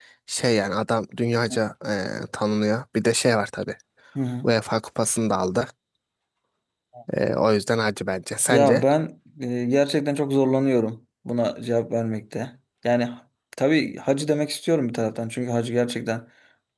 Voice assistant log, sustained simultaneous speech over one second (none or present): none